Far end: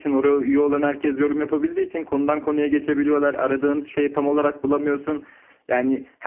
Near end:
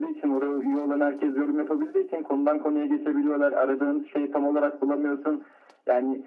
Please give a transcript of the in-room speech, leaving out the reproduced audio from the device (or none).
none